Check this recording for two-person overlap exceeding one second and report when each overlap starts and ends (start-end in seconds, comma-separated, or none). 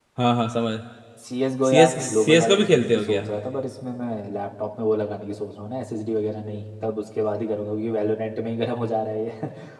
1.7-3.2